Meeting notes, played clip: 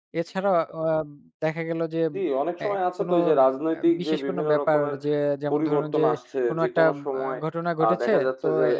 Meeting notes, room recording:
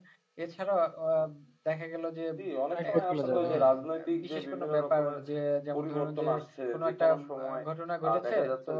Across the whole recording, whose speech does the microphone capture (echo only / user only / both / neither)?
both